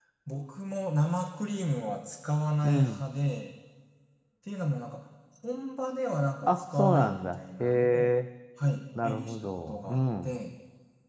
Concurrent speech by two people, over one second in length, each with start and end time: 6.5-8.1, 9.0-10.3

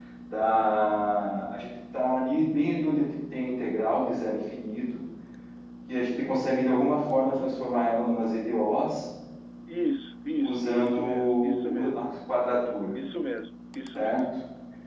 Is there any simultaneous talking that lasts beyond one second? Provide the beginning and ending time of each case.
10.4-12.0

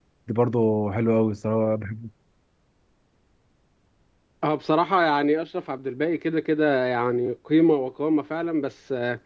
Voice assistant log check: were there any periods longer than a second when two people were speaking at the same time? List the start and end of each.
none

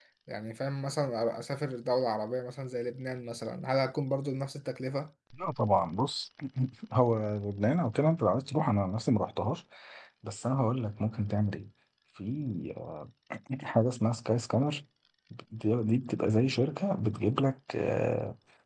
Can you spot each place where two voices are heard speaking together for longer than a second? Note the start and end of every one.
none

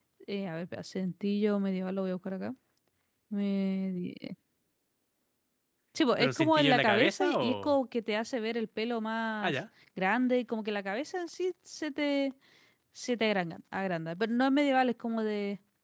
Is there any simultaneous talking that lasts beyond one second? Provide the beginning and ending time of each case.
6.2-7.8

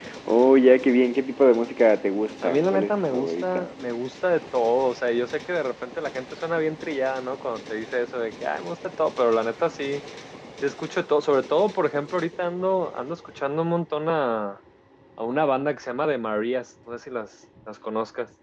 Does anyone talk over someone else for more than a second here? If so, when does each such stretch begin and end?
2.4-3.6

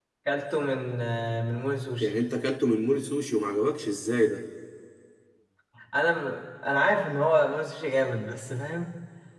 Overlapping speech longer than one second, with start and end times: none

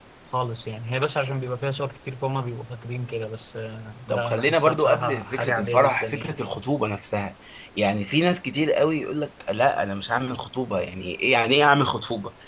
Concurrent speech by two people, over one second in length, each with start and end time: 4.1-6.3

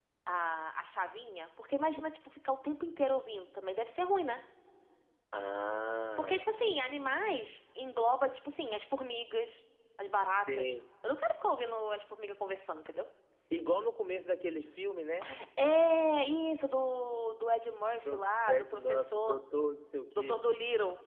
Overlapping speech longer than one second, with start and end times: 18.1-19.4

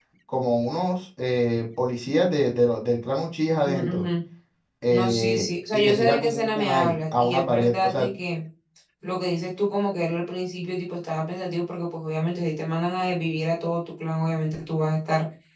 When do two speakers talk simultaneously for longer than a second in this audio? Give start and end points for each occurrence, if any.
4.9-8.1

